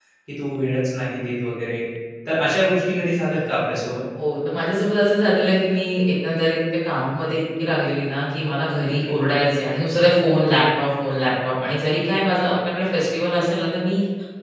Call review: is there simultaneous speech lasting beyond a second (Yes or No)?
No